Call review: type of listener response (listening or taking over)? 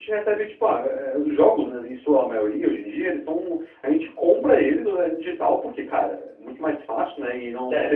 taking over